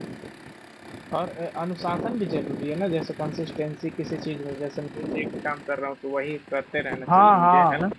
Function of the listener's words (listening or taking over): taking over